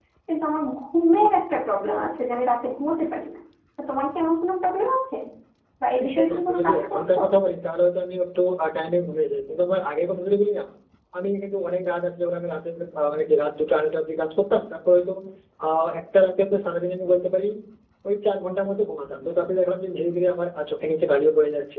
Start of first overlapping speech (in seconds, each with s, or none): 6.0 s